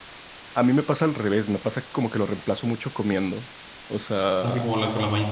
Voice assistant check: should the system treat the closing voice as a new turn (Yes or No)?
Yes